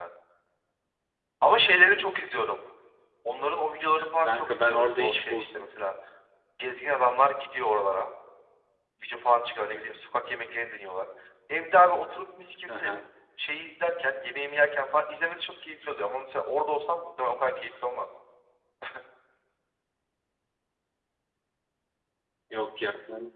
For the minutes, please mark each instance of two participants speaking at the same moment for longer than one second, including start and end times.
3.8-5.6

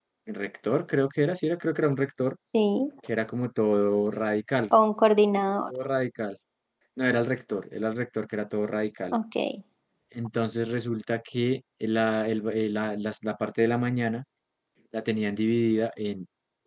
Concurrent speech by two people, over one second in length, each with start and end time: none

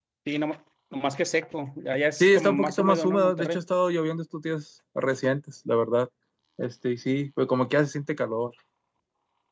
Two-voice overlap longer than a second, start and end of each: 2.2-3.6

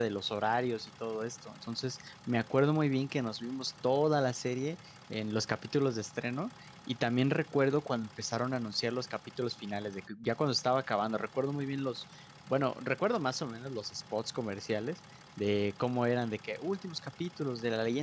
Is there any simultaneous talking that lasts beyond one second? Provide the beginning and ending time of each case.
none

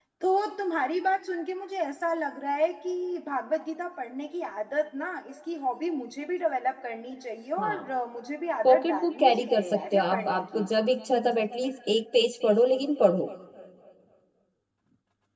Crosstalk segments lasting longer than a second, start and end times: 8.6-10.7

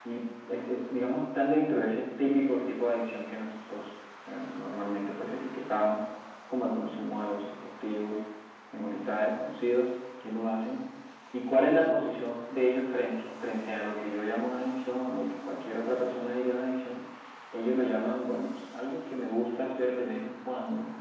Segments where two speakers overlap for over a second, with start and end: none

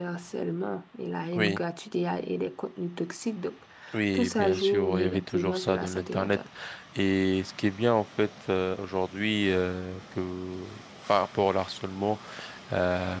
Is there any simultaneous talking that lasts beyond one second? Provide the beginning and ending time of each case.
4.1-6.4

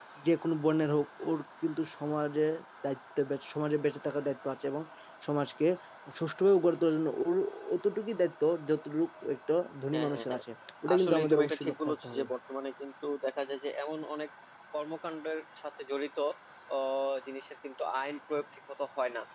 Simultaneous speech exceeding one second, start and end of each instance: 10.9-12.2

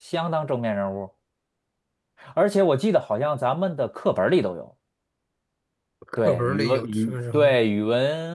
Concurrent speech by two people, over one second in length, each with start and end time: 6.2-7.6

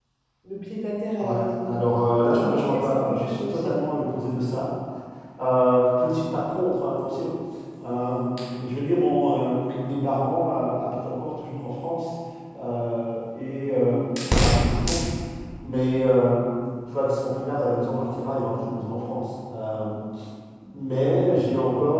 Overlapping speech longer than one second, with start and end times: 2.3-3.8

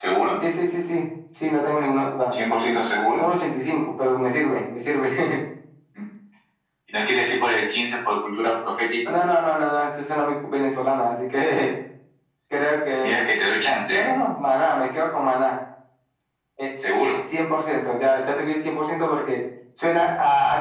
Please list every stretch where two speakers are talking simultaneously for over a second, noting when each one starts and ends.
none

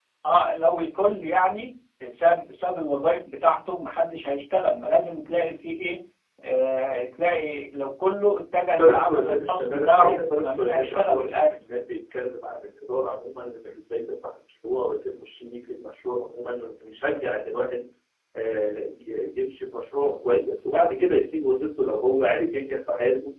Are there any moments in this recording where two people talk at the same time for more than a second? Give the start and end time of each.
8.8-11.4

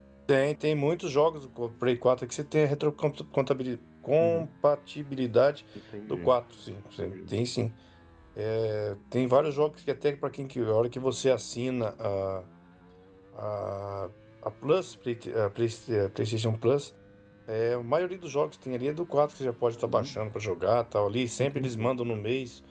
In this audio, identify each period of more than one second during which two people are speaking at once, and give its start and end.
none

